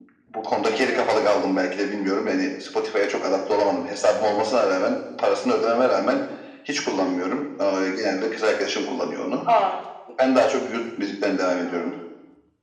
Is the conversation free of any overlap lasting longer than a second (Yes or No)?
Yes